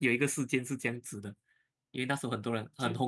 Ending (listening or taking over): listening